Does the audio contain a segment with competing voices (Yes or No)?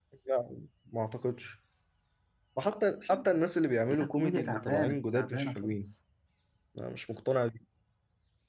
Yes